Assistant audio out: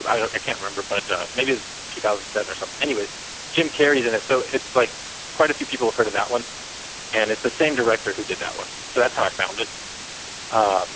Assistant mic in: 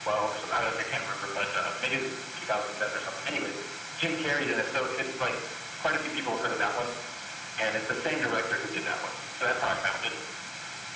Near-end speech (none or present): none